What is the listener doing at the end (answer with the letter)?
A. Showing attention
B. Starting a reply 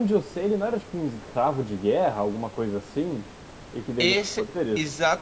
B